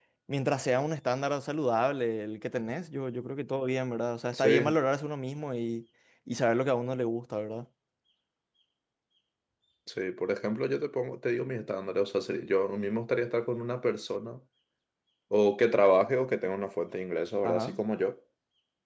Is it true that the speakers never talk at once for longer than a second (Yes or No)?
Yes